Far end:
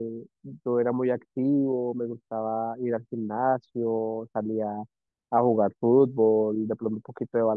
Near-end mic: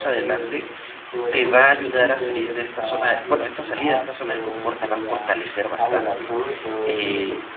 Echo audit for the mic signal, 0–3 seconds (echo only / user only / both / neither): both